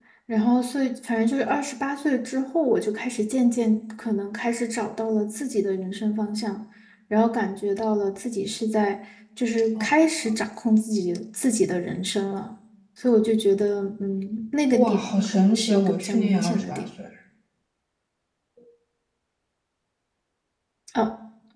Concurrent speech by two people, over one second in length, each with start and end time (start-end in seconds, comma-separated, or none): 14.8-16.9